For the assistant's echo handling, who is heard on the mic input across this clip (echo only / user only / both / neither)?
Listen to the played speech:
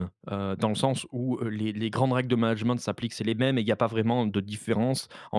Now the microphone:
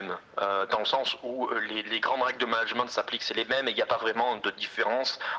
echo only